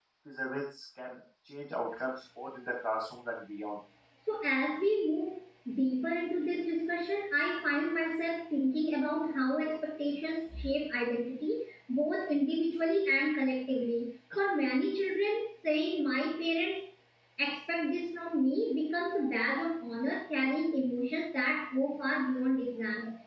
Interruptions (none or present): none